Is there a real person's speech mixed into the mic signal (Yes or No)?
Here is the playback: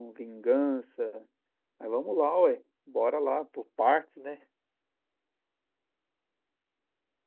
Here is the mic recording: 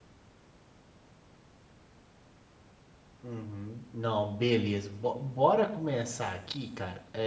Yes